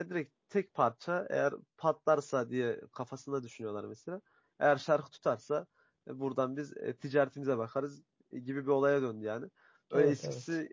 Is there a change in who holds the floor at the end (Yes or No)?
No